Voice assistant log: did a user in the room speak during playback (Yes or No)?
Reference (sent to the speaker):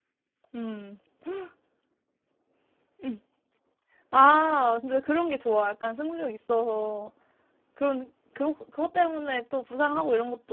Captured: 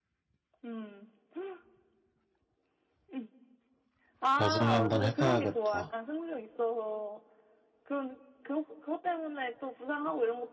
Yes